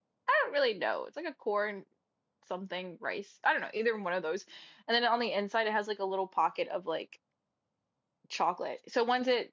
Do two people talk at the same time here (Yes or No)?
No